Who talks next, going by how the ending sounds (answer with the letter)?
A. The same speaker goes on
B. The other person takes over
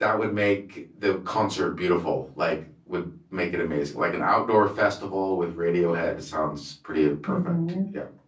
B